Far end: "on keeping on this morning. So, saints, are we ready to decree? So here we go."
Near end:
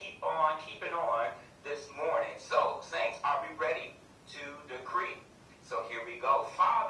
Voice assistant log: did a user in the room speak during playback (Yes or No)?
No